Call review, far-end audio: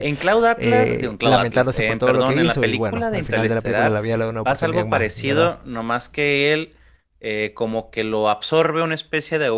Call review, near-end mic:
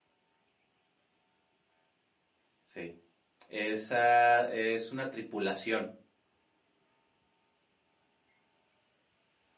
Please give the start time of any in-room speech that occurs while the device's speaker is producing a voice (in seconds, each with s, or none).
2.7 s